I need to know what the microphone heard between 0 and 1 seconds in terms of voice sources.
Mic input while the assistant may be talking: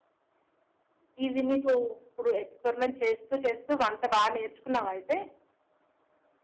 neither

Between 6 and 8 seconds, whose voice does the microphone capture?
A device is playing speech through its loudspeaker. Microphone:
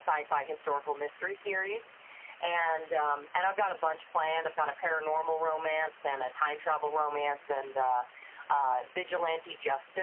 echo only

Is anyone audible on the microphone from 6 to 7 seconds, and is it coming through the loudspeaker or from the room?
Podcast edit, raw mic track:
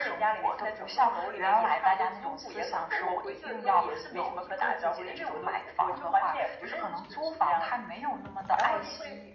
echo only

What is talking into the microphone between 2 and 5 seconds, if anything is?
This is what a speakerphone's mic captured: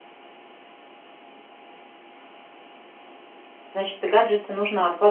user only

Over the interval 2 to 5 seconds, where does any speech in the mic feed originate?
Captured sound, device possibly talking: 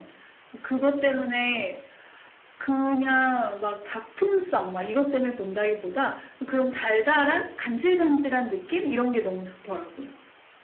echo only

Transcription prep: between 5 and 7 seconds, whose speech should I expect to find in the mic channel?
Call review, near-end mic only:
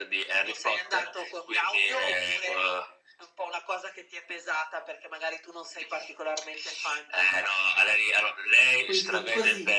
echo only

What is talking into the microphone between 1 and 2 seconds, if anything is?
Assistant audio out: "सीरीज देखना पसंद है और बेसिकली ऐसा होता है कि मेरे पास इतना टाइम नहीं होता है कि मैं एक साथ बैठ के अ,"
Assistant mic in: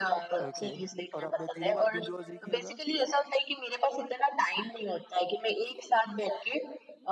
both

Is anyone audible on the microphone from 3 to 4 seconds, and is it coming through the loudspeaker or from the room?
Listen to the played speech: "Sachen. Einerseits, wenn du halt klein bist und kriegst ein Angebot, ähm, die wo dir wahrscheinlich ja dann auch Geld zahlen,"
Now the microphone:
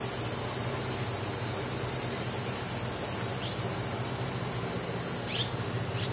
neither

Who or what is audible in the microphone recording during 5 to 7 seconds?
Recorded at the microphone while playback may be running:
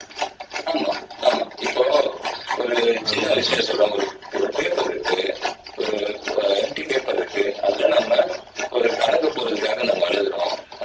echo only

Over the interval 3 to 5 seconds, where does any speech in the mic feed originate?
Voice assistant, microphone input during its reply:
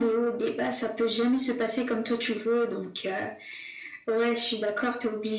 echo only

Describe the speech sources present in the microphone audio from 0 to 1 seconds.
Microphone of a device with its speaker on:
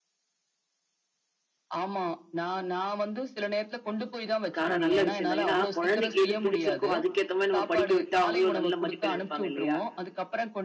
neither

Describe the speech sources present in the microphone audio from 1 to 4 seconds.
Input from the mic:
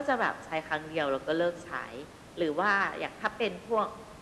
echo only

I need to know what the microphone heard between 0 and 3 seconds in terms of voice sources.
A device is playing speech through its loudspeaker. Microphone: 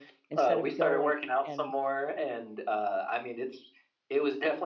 both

